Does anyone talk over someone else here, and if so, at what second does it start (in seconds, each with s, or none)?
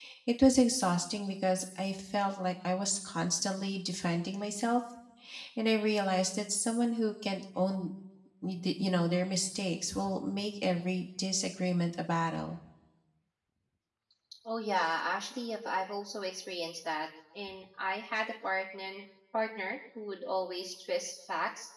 none